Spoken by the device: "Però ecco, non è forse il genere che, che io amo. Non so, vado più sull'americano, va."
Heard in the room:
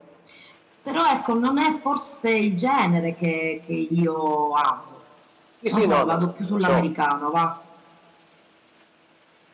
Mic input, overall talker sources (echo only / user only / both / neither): both